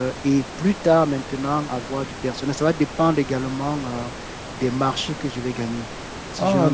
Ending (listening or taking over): listening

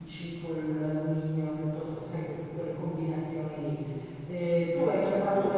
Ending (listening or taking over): listening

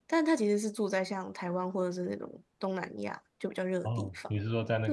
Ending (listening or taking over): taking over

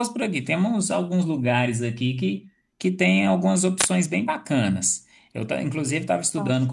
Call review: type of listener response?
listening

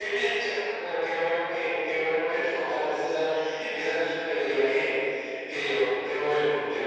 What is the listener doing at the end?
taking over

